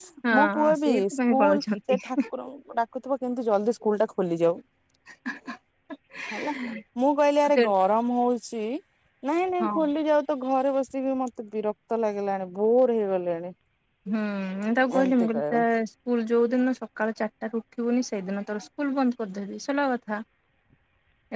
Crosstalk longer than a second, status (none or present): present